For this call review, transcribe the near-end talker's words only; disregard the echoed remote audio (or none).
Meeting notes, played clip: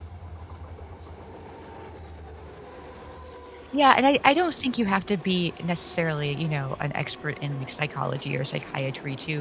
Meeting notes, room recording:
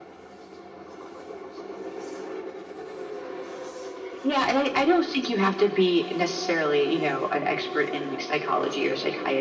none